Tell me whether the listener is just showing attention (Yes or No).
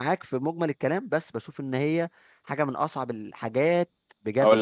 No